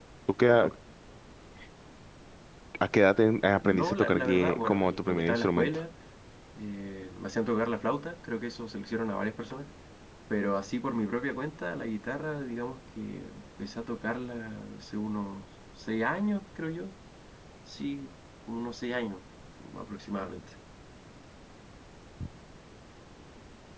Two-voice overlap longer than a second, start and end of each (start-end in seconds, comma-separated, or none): 3.6-5.8